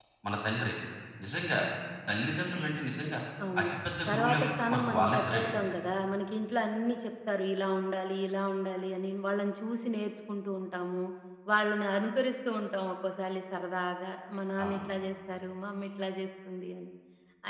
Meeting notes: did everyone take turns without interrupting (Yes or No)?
No